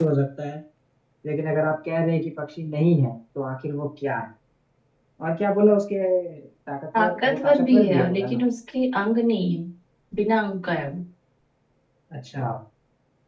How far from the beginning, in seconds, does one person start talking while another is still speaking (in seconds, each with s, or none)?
7.0 s